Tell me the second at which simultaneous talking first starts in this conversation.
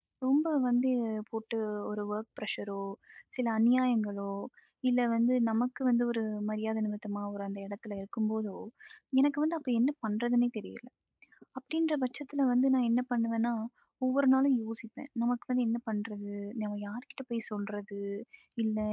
none

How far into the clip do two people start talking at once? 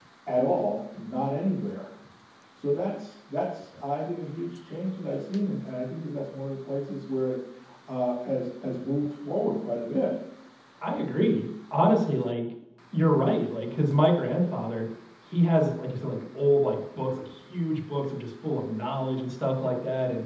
none

